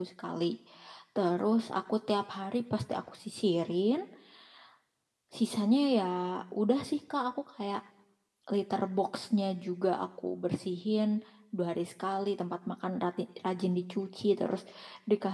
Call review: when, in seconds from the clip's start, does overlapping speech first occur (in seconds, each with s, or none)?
none